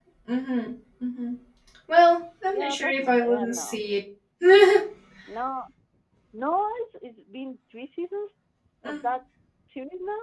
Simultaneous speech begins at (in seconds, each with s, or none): 2.5 s